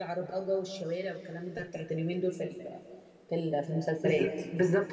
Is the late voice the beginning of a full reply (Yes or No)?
Yes